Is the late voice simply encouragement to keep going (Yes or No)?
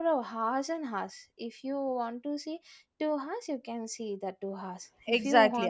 No